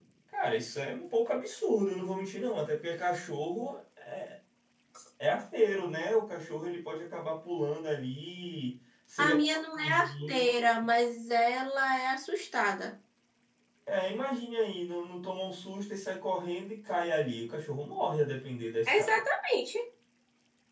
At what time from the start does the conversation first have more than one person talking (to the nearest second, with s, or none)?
9 s